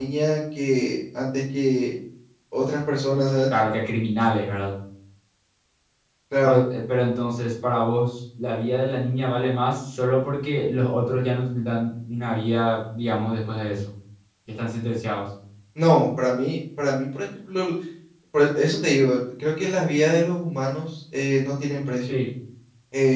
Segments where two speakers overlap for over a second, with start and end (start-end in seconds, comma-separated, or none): none